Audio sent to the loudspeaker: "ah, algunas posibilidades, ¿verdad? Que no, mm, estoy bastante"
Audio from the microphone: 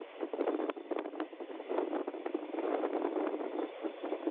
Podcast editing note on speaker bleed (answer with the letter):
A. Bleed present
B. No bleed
B